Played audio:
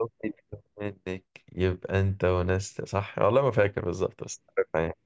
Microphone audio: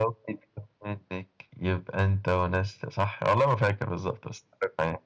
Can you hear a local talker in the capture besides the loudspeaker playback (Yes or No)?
No